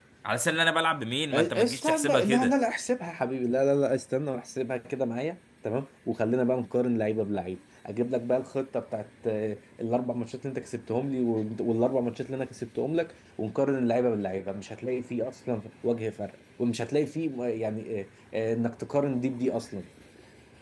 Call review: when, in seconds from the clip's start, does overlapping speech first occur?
1.3 s

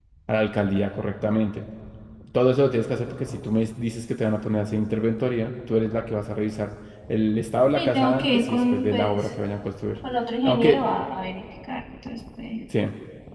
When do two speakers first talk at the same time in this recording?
7.7 s

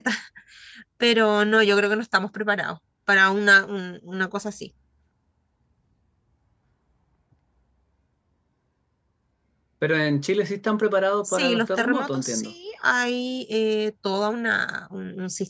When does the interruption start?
11.2 s

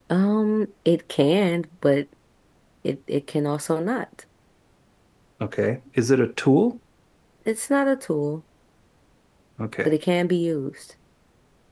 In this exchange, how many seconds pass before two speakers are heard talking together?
none

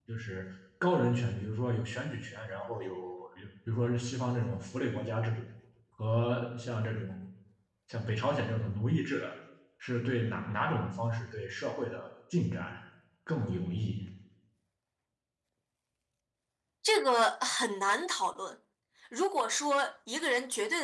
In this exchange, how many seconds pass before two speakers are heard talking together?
none

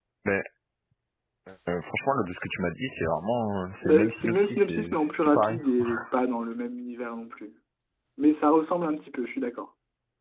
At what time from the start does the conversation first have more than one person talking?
3.8 s

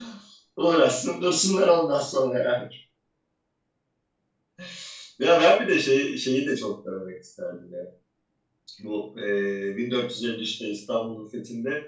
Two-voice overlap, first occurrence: none

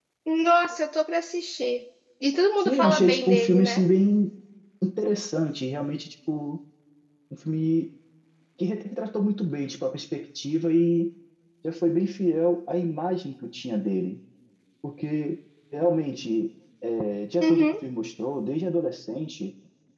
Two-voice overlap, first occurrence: 2.6 s

